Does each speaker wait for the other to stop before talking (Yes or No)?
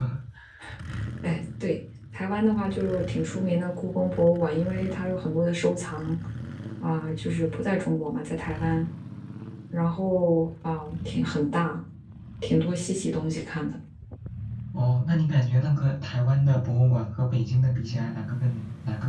Yes